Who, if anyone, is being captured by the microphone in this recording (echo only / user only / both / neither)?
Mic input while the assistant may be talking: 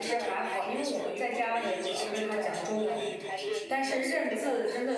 both